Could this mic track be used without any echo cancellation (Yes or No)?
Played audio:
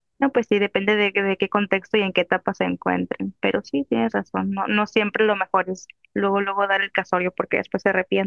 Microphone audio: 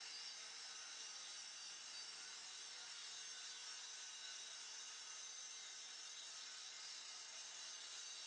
Yes